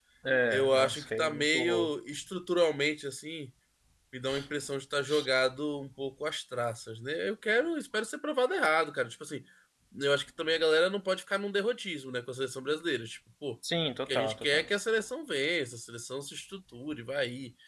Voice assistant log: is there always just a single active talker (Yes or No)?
No